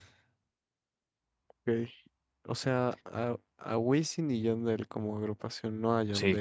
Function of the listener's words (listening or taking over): taking over